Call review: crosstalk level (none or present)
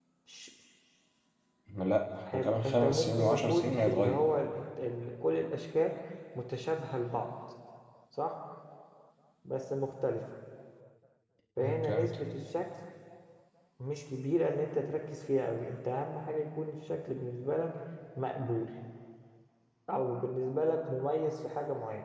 present